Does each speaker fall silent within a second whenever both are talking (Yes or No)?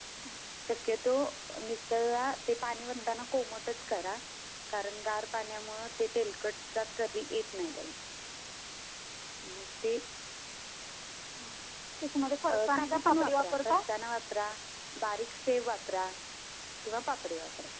No